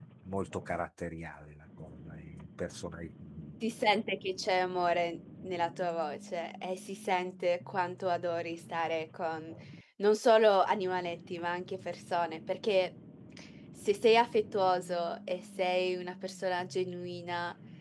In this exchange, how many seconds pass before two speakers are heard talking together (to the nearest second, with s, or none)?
none